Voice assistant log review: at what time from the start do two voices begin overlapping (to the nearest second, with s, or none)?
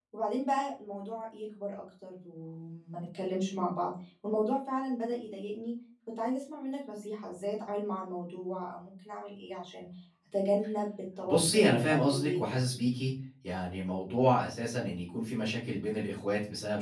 11 s